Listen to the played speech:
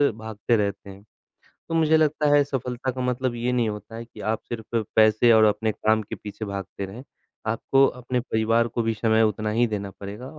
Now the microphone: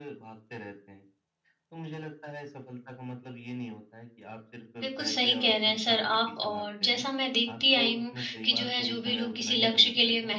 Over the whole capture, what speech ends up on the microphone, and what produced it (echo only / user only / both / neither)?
both